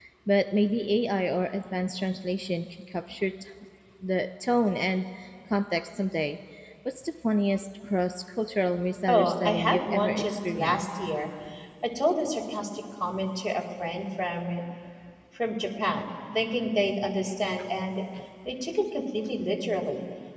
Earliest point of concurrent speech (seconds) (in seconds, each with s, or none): 9.1 s